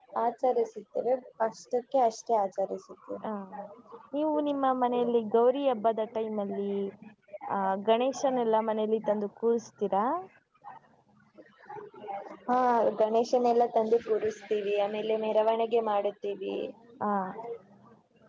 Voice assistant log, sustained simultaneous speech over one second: none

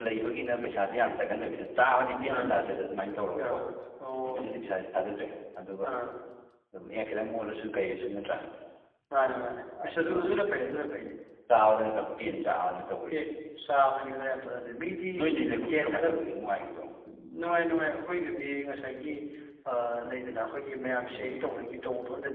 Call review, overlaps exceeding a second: none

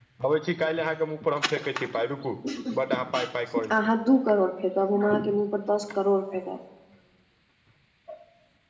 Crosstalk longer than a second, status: none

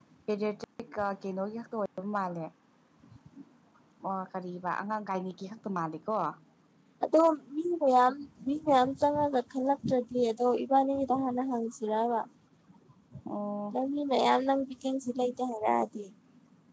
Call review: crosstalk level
none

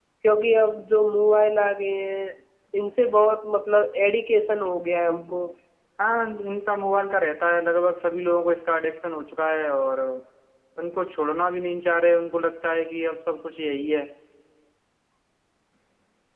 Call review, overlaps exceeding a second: none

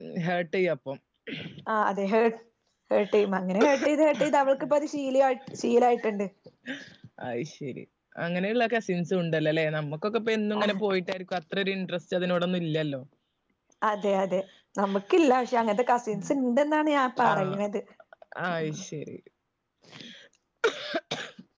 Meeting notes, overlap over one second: none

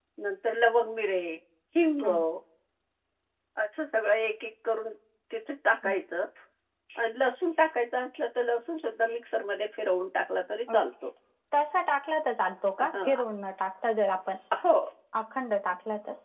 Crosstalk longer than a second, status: none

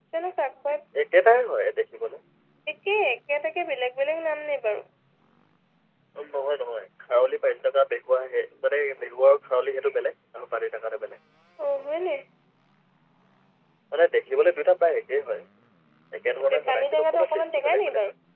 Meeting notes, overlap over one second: present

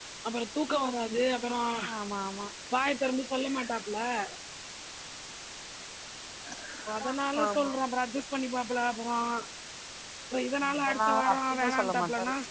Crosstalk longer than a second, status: present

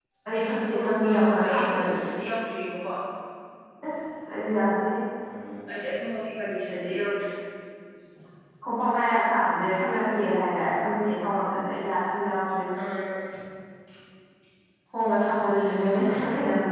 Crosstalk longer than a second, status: present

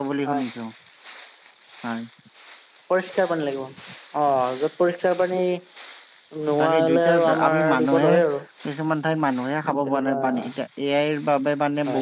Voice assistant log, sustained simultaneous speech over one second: present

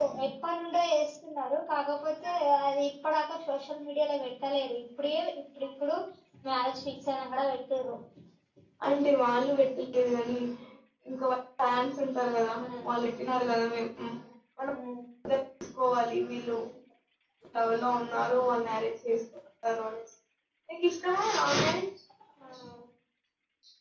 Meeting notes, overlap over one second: none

